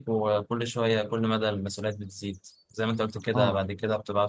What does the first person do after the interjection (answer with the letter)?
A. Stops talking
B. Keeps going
B